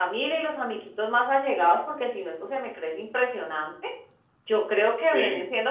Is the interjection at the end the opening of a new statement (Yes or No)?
No